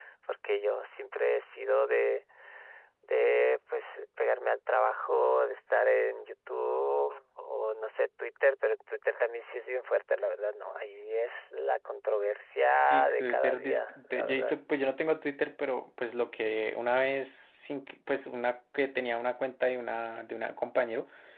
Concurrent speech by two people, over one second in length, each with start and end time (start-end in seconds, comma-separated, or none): 12.8-14.6